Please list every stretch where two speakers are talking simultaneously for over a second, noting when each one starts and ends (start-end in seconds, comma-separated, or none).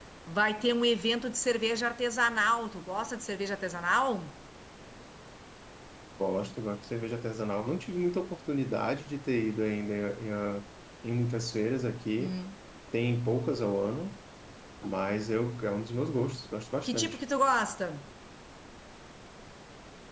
none